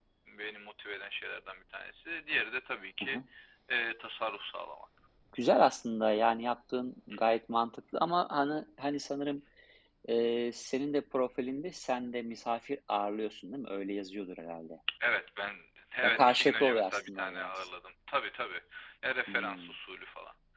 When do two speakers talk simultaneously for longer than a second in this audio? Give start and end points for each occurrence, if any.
16.0-17.5

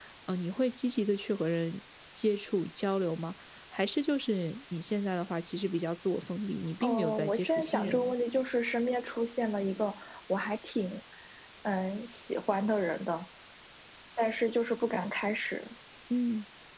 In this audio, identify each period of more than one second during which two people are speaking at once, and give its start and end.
6.8-8.1

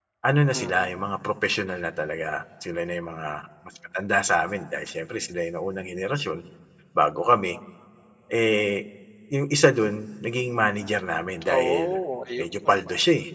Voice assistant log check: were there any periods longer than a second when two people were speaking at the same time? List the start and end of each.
none

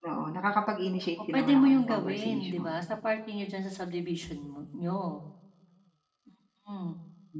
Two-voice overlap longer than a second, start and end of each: 1.3-2.7

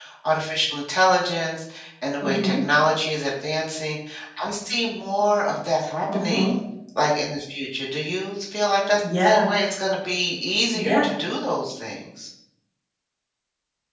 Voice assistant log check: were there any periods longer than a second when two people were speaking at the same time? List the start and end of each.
none

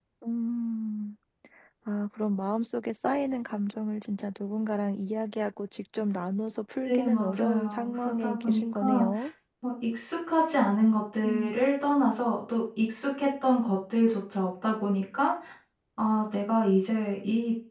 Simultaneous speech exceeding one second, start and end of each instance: 6.9-9.0

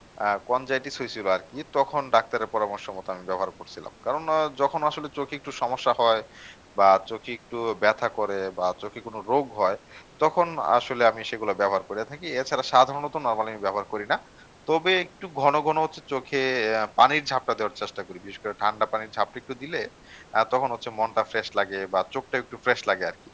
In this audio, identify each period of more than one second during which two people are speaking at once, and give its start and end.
none

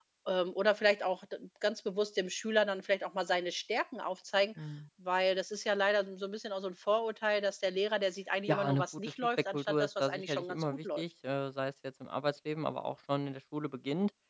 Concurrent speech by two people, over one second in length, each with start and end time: 8.5-11.0

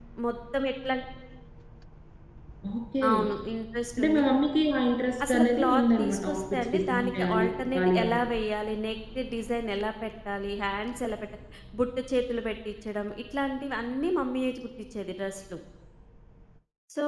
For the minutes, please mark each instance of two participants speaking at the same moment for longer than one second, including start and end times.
5.3-8.3

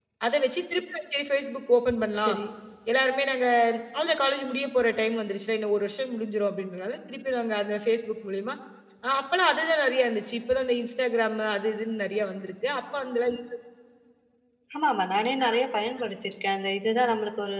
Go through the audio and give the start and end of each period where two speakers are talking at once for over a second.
none

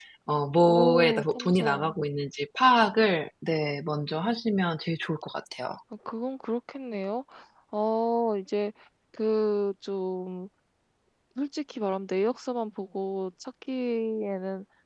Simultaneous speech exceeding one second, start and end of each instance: 0.6-1.9

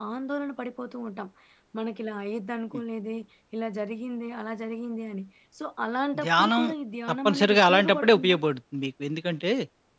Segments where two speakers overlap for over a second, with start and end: 7.1-8.4

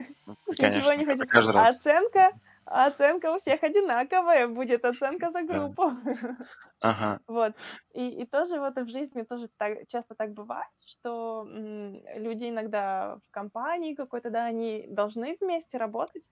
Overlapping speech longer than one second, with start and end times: 0.5-1.8

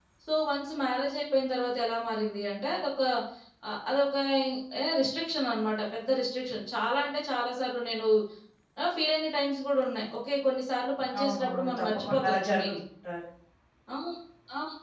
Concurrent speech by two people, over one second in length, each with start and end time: 11.2-12.7

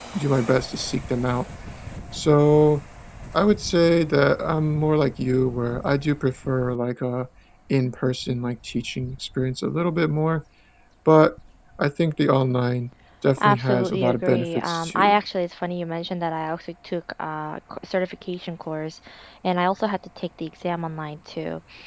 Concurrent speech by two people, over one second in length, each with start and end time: 13.4-15.2

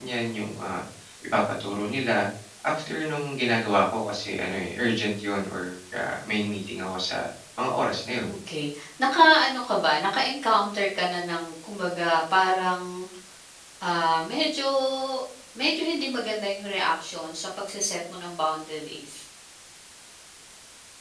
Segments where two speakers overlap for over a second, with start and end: none

